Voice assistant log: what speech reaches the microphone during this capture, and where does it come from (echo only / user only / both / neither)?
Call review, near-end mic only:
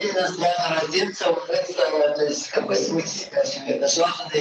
both